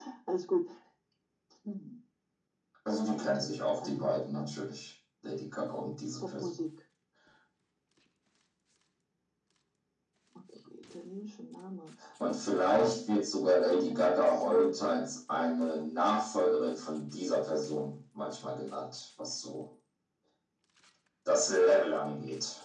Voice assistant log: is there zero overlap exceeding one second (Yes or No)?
No